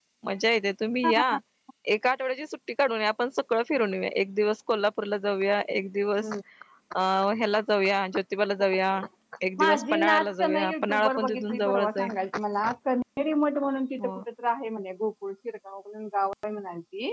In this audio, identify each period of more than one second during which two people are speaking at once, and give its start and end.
9.6-12.1

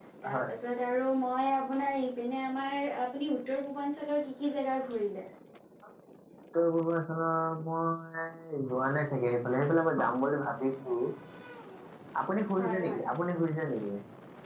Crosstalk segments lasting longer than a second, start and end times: none

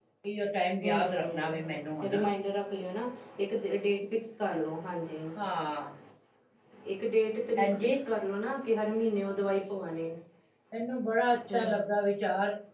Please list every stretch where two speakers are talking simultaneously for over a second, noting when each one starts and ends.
0.8-2.1

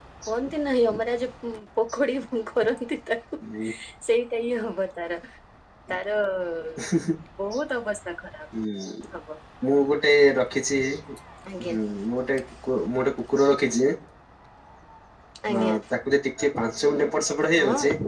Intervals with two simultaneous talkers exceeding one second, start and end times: none

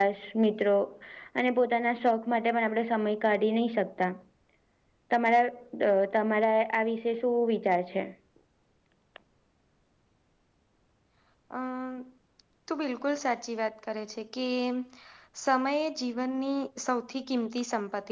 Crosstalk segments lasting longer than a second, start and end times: none

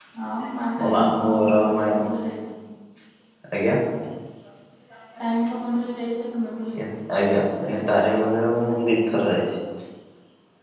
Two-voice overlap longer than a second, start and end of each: 0.8-2.0

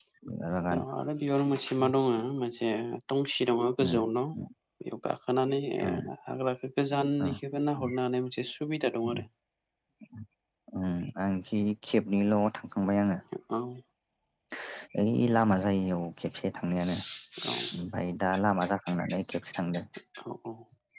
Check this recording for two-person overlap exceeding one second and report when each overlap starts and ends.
none

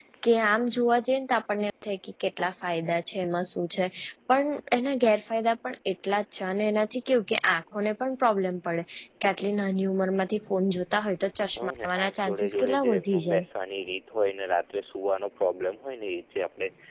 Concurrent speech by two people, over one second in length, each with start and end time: 11.6-13.4

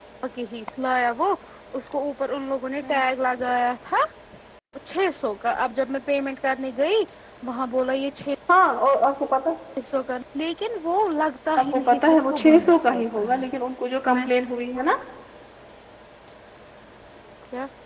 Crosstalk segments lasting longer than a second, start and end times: 11.6-13.5

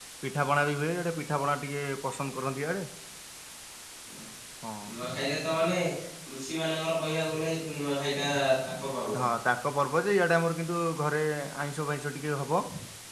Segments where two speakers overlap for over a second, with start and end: none

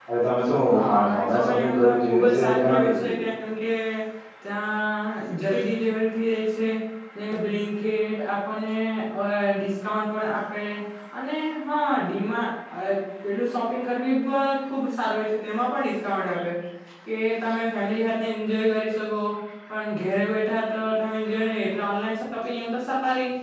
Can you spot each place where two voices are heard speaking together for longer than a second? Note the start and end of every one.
0.7-3.2

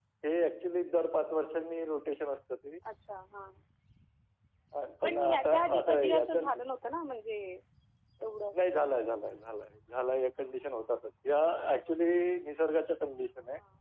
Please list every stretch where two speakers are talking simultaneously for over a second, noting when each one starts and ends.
5.0-6.4

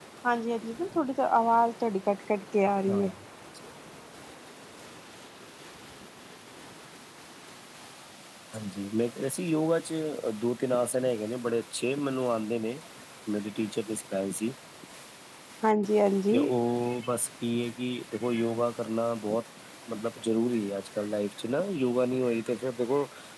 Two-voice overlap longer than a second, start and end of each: none

